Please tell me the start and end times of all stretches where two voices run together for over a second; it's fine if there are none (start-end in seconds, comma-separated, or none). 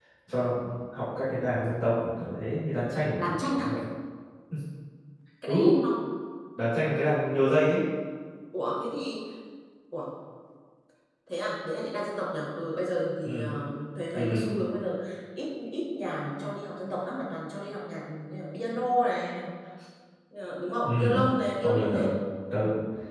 none